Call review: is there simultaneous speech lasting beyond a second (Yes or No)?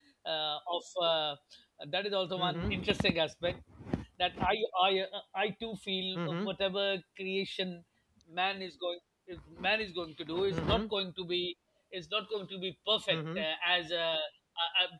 No